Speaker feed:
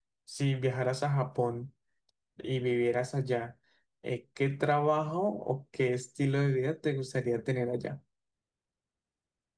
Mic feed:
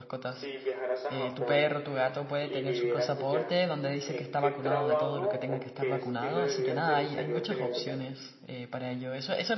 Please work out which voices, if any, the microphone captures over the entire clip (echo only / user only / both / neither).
both